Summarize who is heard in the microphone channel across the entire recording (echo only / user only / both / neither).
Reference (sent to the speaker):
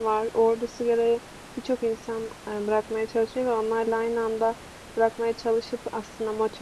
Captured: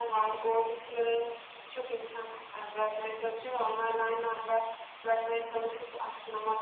echo only